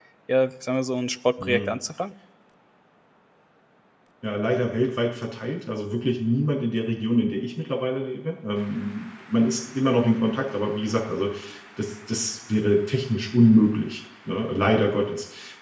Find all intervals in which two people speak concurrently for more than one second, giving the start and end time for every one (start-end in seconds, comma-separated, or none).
none